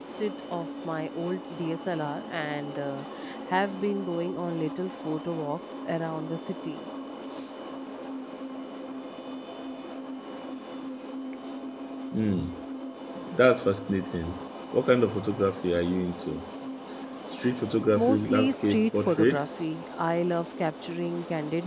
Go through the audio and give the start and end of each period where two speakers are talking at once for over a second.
17.9-19.5

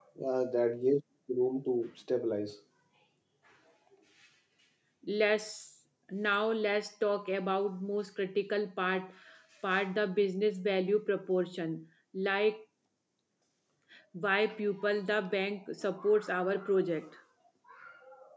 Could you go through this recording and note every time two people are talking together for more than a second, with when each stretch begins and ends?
none

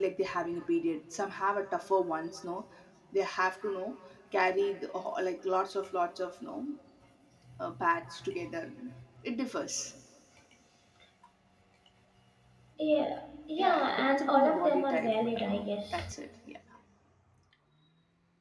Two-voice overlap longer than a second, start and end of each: 13.6-15.5

